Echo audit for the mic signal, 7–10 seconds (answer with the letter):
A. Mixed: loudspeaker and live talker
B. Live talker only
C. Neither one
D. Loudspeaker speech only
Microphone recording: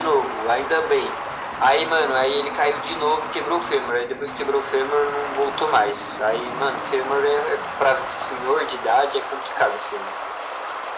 D